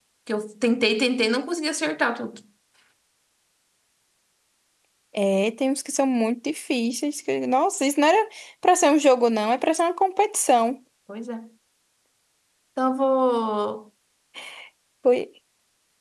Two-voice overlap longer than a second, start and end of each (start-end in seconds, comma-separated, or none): none